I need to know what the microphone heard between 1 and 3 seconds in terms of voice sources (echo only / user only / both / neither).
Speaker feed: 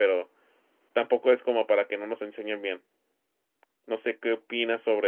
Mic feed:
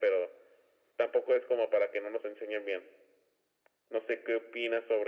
echo only